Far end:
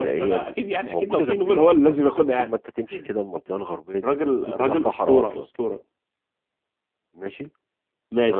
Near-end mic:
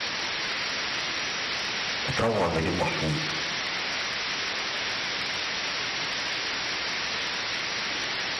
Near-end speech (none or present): present